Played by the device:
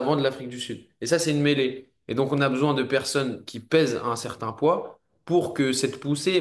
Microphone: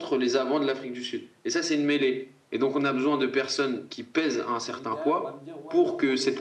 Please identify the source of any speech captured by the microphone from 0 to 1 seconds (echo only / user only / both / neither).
echo only